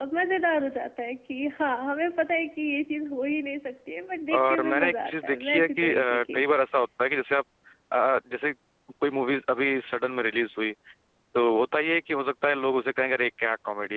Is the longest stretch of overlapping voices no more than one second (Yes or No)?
No